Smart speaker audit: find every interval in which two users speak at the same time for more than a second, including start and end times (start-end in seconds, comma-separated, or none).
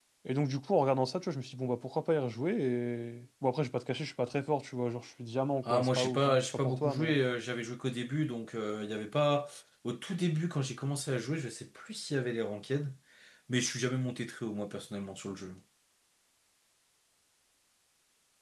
5.7-7.1